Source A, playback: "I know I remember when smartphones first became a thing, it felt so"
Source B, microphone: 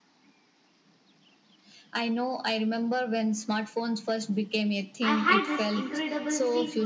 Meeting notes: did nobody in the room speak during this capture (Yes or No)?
No